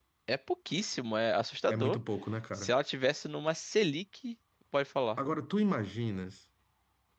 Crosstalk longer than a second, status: none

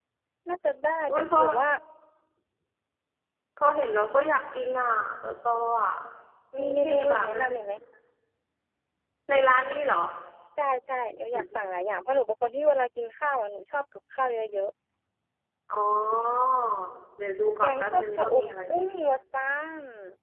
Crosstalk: present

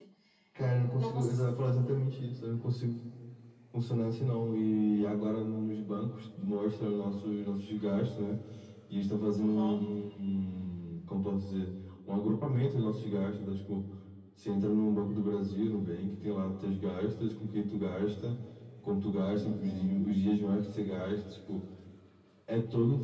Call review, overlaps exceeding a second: none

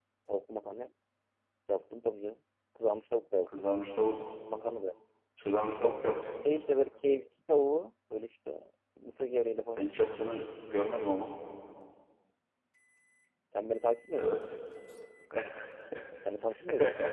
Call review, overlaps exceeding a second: none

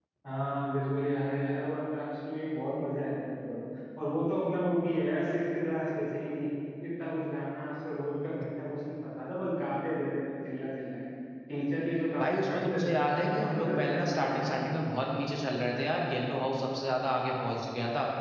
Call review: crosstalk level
present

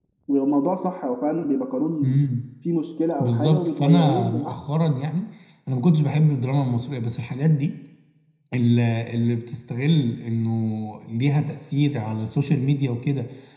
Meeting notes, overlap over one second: present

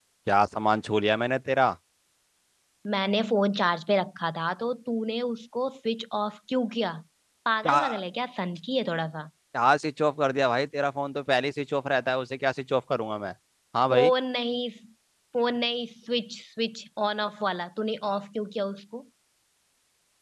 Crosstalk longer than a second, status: none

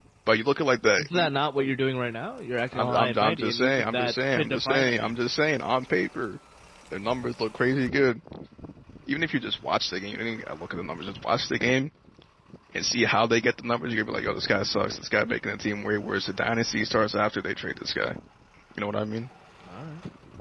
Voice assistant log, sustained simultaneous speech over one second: present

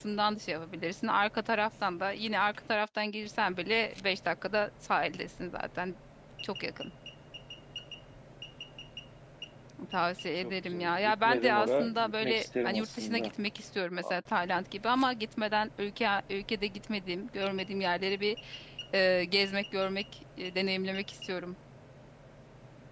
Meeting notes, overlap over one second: present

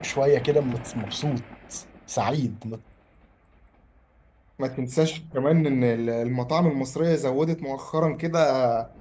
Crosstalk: none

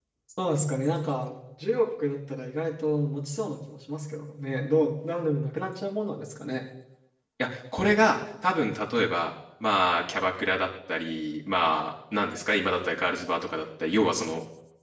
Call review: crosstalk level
none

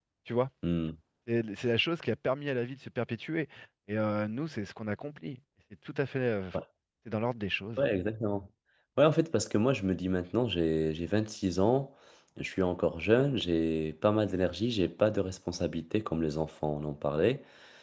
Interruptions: none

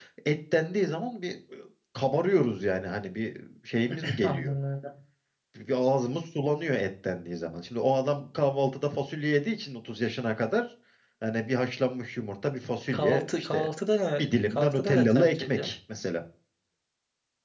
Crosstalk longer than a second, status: present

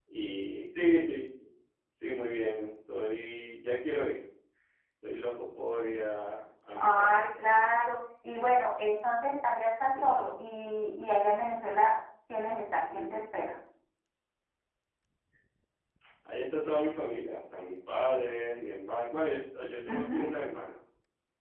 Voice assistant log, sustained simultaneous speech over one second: none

